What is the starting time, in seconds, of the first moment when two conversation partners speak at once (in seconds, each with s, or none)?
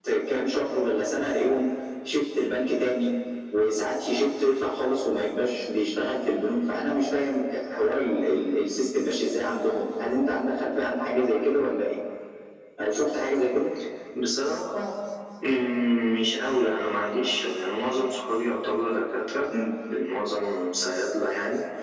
none